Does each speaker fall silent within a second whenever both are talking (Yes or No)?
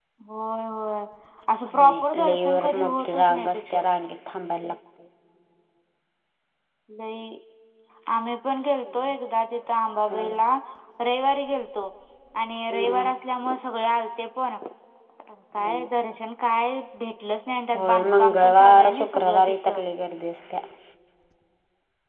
No